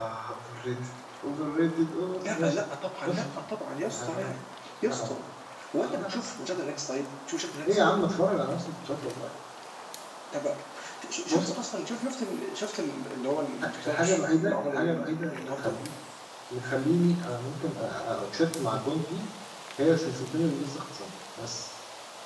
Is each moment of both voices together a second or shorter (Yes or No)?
No